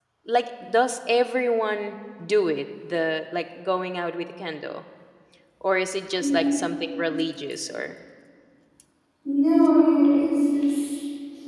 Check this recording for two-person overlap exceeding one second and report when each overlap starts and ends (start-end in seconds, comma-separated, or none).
none